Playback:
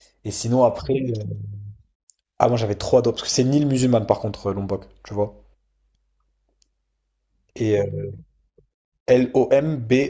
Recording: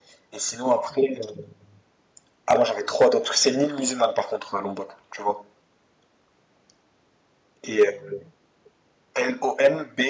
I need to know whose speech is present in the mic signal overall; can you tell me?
echo only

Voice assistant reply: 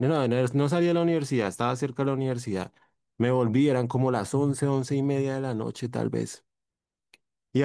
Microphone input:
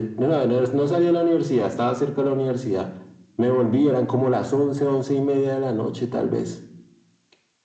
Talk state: echo only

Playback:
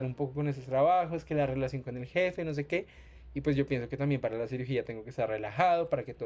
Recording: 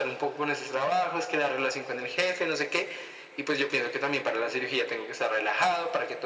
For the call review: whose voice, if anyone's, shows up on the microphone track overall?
echo only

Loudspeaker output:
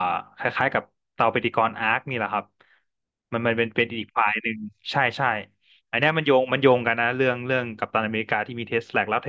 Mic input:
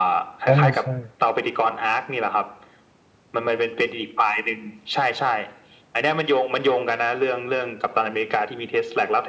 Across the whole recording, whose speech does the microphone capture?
both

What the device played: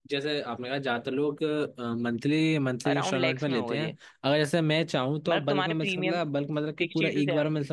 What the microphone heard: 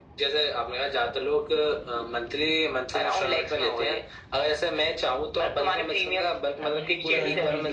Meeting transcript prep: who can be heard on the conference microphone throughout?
both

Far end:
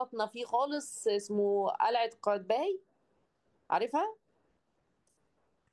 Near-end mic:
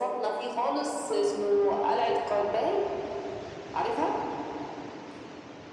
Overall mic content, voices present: echo only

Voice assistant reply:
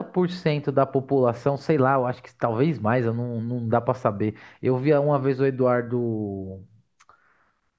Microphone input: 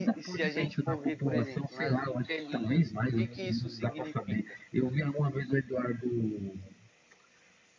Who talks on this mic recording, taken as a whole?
both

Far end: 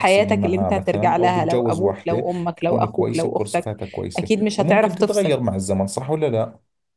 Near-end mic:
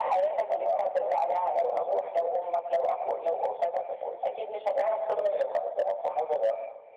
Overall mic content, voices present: echo only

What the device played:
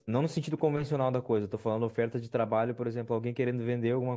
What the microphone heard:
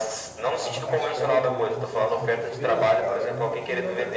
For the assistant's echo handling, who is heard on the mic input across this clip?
both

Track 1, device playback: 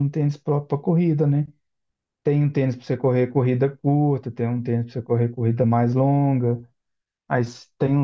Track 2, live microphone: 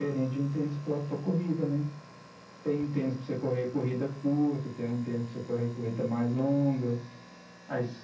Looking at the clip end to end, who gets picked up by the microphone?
echo only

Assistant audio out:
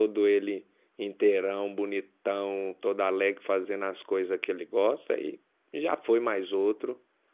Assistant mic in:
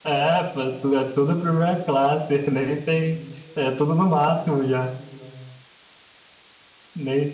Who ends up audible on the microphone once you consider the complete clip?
user only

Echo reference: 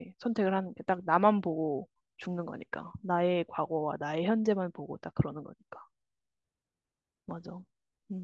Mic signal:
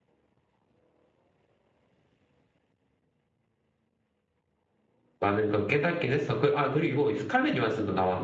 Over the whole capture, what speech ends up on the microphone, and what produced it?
user only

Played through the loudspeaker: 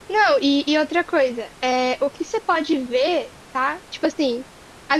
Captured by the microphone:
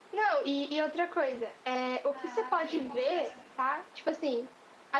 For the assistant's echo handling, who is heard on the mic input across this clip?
both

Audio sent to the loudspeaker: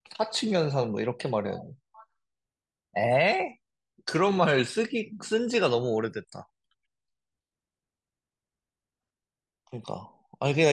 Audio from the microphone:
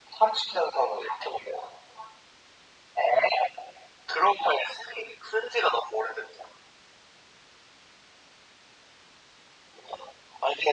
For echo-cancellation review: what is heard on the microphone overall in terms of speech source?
echo only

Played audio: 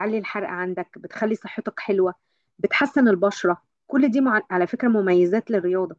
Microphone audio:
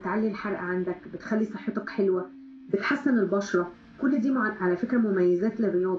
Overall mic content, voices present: echo only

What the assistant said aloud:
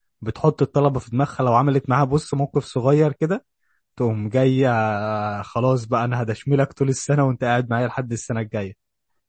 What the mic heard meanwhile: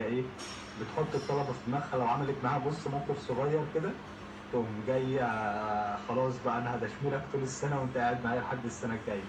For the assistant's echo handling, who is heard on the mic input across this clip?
echo only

